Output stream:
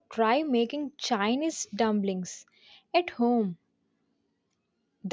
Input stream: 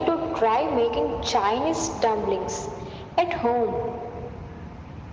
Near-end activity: none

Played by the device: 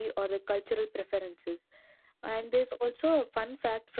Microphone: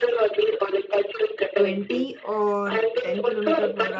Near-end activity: present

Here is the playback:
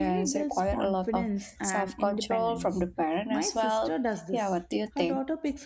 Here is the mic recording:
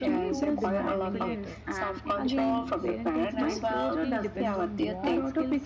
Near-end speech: present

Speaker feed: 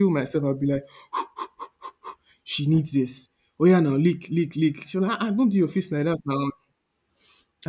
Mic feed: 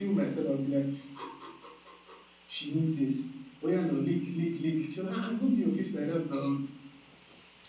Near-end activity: none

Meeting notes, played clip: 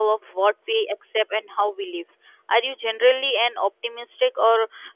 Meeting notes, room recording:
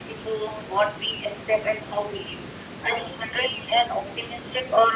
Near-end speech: none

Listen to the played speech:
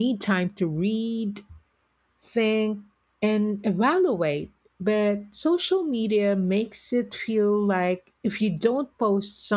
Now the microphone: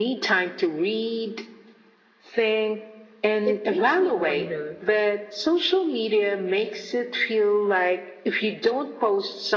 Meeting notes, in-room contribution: present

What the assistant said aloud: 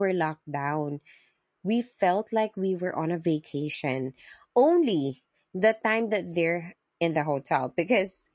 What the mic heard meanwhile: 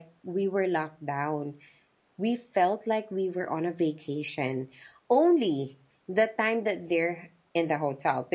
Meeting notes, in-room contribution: none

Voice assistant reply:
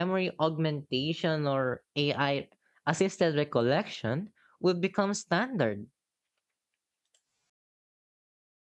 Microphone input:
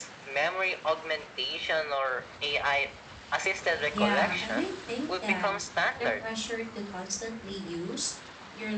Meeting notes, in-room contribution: present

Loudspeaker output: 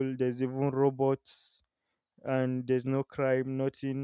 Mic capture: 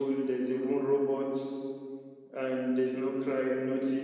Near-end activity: none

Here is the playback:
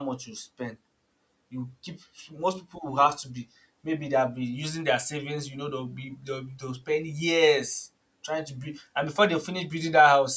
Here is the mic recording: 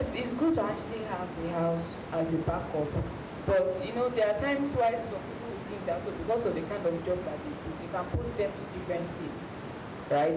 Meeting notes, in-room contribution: present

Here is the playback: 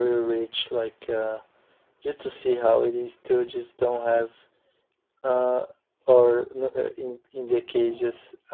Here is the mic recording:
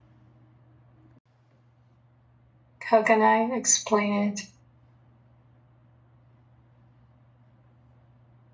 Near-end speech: present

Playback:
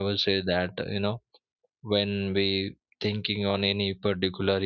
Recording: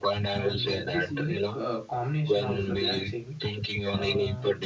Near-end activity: present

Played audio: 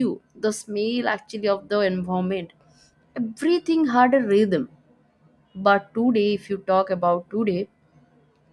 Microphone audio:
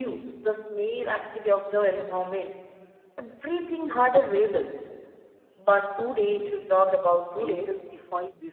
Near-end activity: present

